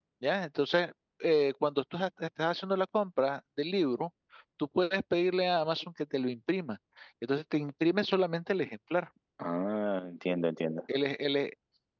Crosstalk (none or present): none